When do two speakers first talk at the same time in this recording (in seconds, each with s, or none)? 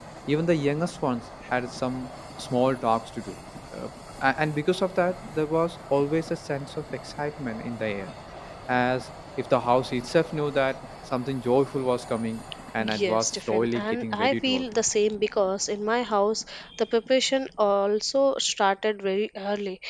12.8 s